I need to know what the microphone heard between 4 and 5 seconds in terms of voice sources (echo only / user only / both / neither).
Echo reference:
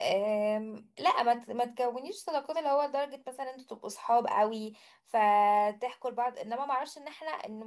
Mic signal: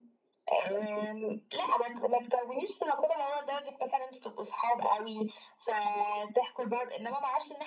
echo only